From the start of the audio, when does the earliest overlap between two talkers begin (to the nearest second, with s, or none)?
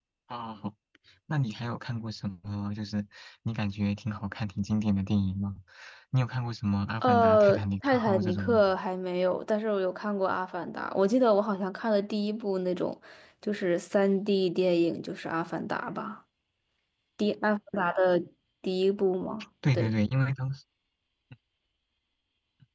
7 s